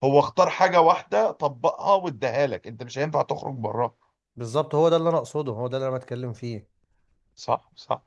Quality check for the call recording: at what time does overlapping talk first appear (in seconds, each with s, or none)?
none